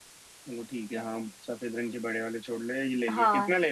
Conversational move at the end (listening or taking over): taking over